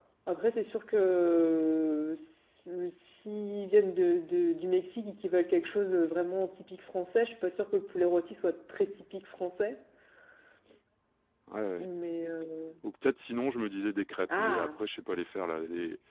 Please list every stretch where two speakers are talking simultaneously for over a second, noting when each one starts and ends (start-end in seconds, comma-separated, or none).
none